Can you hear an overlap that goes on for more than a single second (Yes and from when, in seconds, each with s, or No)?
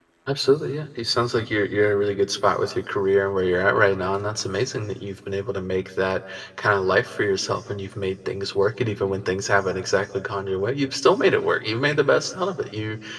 No